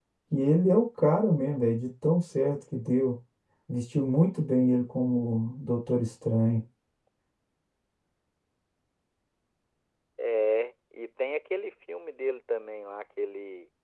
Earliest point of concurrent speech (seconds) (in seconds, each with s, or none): none